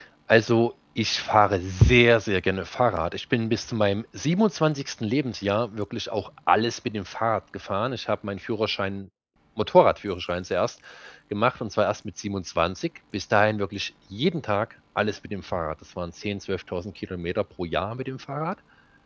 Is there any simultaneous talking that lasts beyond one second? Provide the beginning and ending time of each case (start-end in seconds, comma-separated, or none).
none